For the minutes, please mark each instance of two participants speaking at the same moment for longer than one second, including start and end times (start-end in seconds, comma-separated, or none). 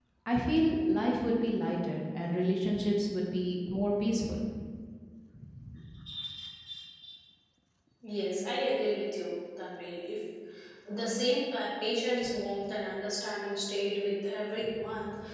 none